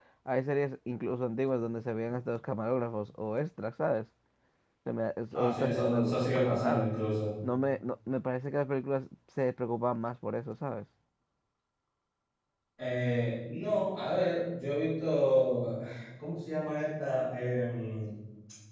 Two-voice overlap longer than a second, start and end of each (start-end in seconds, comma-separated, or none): 5.3-6.9